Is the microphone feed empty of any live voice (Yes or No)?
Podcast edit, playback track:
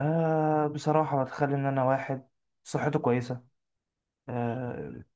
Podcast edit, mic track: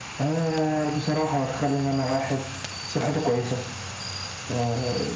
Yes